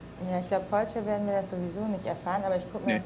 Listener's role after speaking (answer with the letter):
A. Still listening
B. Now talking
A